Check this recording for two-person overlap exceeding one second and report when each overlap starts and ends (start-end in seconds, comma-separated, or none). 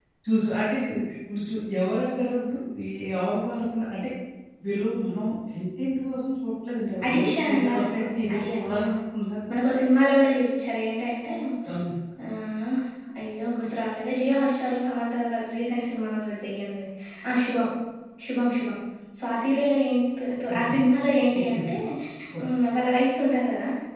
7.1-8.8